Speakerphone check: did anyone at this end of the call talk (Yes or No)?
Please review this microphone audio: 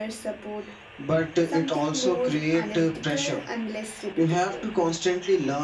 No